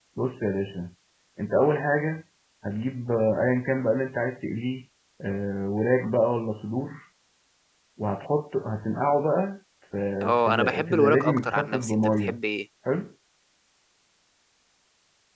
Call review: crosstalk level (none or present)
present